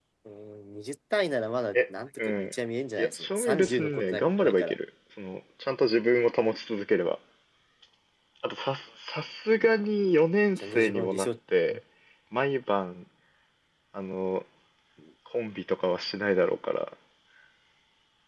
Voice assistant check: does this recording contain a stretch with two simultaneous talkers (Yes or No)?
Yes